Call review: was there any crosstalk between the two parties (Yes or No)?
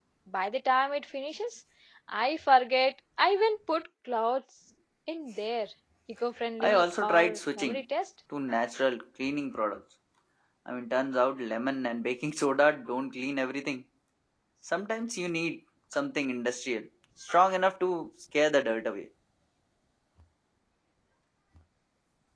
Yes